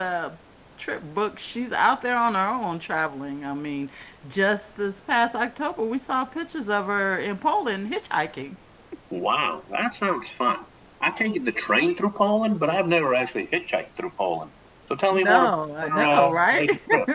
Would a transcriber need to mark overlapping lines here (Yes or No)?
Yes